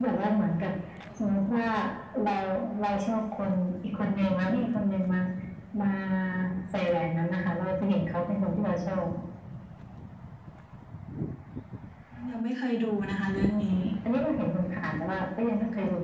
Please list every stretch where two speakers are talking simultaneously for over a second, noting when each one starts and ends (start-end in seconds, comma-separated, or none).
none